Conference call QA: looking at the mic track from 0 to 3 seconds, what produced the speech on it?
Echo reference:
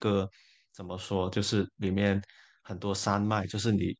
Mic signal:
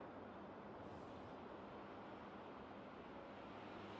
neither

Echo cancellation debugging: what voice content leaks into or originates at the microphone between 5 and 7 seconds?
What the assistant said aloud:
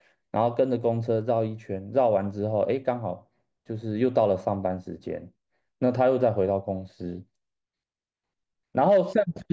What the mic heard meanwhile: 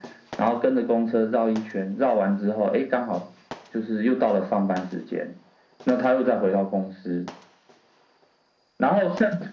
echo only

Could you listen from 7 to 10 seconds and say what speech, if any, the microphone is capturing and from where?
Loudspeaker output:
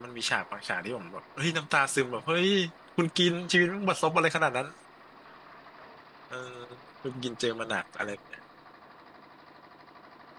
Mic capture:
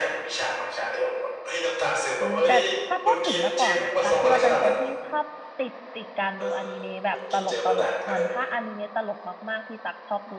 both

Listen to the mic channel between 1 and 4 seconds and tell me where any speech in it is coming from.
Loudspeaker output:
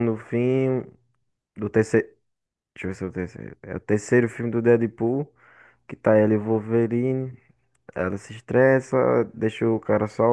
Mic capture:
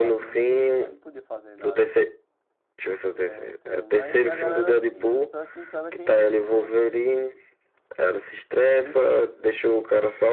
both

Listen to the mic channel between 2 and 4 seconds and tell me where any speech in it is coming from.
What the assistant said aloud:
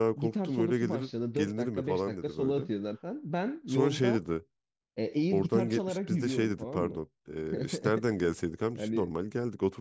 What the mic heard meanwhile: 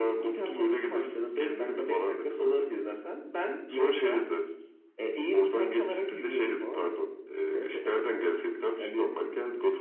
echo only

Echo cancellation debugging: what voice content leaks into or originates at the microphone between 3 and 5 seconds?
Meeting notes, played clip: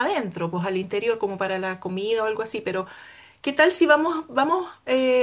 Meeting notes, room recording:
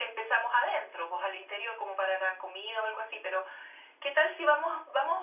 echo only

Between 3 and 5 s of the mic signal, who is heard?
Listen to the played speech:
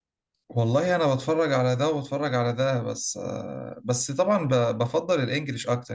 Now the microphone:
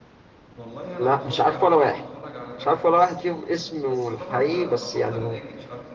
both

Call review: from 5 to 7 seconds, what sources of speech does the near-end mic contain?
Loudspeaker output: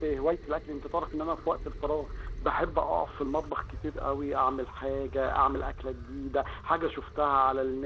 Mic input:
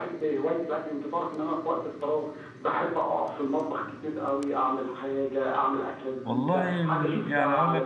both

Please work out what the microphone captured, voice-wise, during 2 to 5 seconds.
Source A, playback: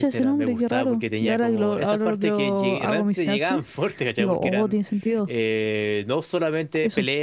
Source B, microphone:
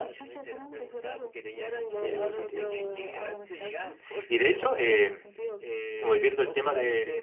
both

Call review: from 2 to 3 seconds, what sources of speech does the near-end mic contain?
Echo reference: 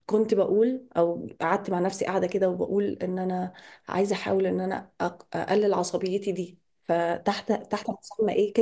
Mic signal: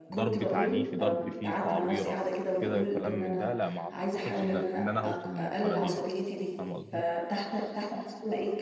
both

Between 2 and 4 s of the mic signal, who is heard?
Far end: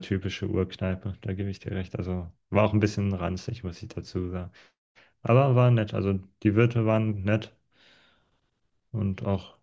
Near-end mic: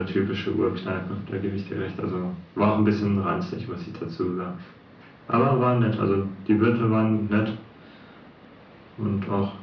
echo only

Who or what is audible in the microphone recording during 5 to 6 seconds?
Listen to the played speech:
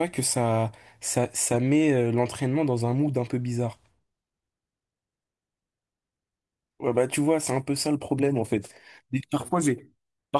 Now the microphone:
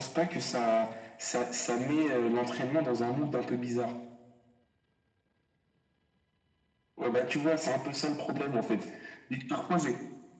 neither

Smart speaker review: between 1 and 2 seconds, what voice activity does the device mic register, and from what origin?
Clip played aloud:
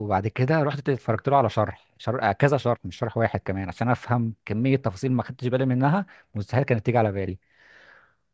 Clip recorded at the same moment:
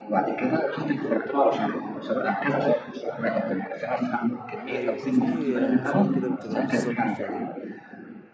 echo only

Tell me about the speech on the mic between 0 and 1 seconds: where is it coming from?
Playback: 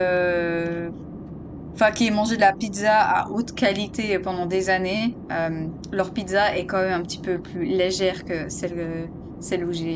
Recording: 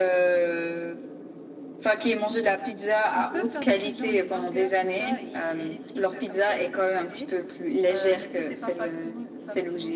echo only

